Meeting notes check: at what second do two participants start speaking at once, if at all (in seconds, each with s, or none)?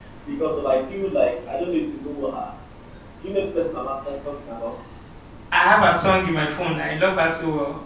none